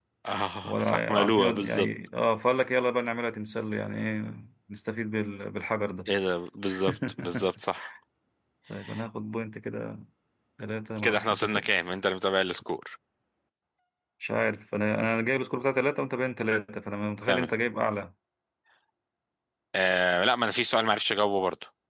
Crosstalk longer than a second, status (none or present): present